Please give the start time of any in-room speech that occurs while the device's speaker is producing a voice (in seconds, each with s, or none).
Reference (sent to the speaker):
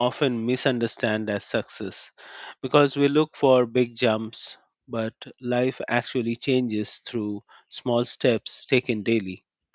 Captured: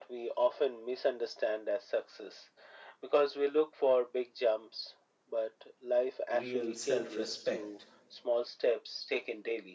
6.3 s